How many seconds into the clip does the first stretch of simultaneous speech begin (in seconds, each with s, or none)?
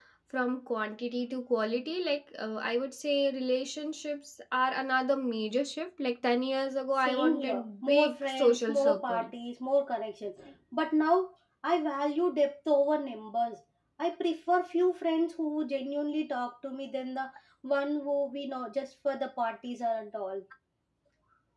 7.1 s